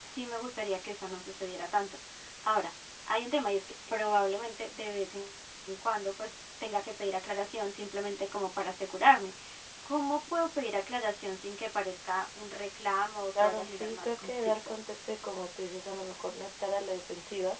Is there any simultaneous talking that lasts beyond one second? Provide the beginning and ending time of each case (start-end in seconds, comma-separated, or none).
13.4-14.7